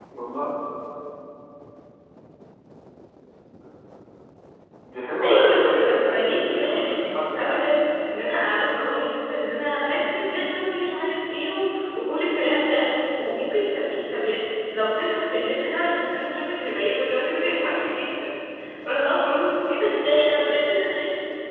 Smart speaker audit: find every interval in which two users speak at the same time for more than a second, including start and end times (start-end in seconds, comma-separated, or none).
5.2-7.7